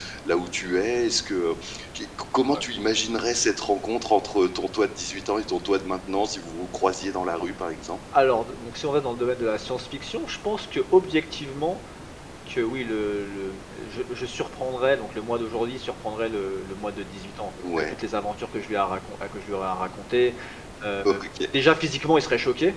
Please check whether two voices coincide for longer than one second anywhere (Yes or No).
No